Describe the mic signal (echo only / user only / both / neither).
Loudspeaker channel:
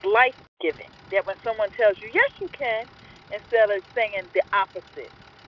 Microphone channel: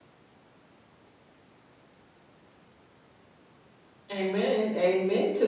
user only